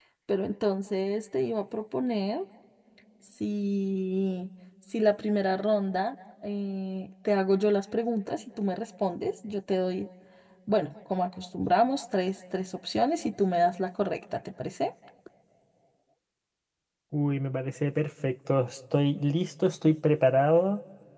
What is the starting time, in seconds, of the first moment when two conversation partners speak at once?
none

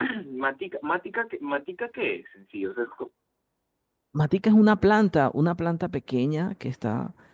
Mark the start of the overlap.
none

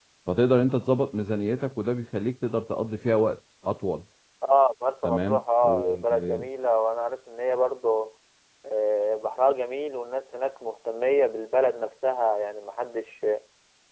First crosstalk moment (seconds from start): 5.0 s

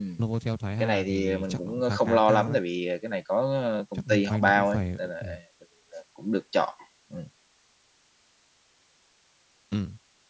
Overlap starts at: 0.8 s

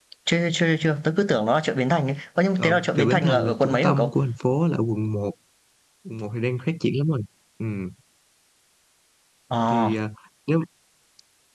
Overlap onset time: 2.6 s

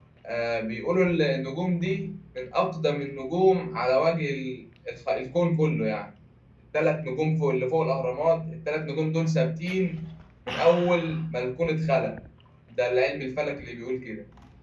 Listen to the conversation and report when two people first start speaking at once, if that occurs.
none

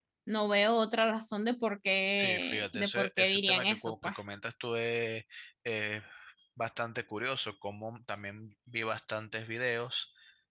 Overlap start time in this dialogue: 2.2 s

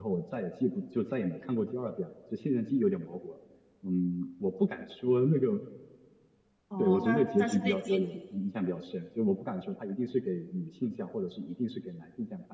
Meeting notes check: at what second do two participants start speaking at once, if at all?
6.8 s

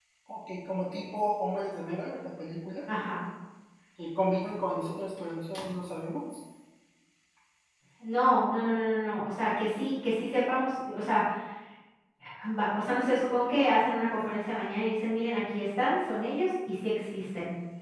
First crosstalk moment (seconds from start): none

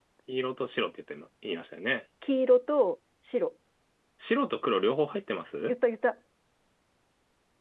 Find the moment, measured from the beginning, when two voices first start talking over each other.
none

